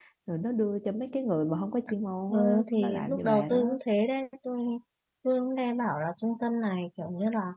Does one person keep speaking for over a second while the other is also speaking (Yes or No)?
Yes